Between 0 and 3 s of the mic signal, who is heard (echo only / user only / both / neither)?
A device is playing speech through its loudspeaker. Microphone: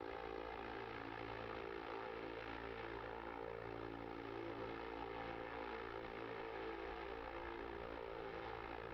neither